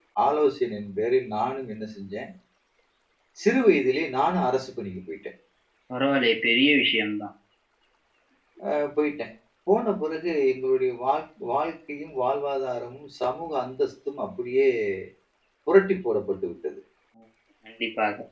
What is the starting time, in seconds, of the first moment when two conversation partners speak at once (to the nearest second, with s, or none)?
none